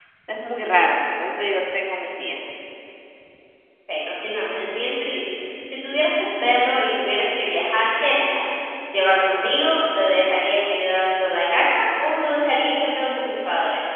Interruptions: none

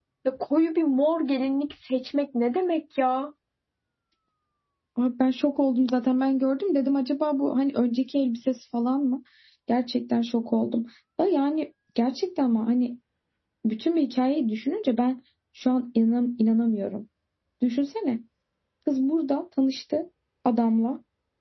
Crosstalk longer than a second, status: none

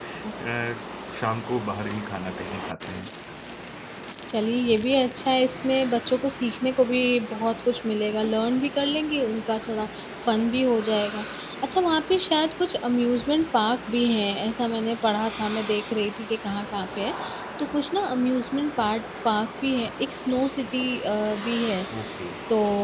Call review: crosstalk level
none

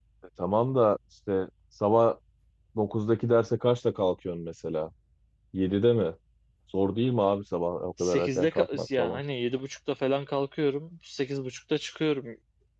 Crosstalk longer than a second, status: present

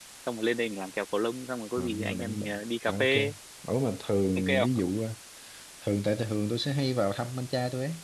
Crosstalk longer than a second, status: present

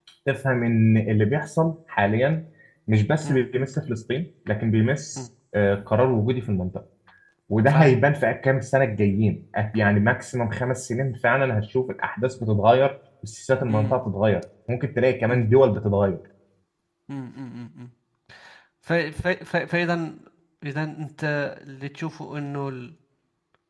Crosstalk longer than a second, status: none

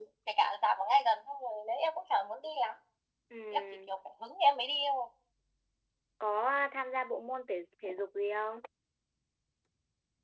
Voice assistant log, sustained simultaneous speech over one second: none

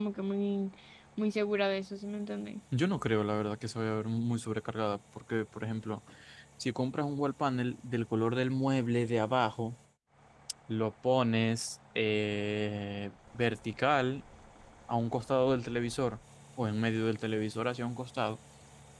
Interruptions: none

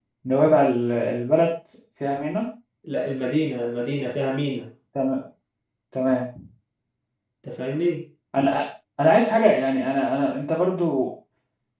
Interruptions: none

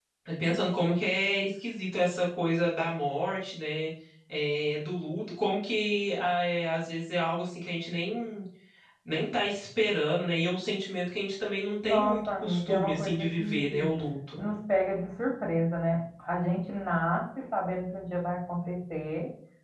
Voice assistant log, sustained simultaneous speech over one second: present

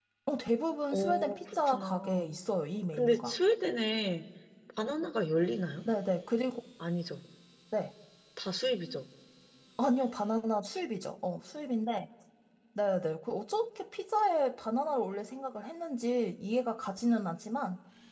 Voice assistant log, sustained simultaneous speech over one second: present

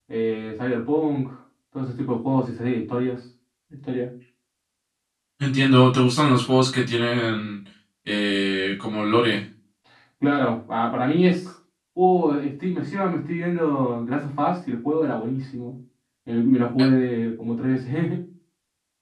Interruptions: none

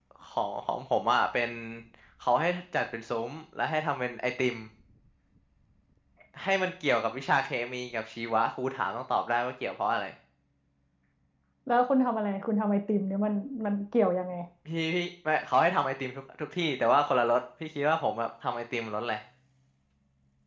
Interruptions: none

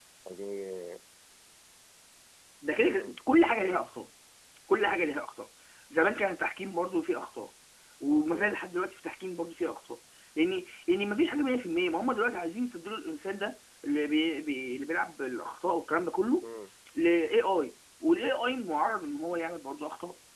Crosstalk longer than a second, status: none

